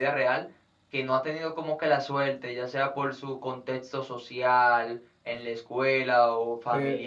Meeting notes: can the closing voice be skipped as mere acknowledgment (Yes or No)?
No